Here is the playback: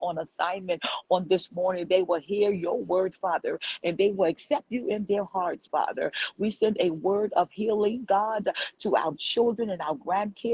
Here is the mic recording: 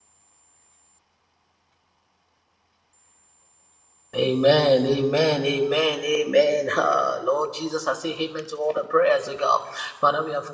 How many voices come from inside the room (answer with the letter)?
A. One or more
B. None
A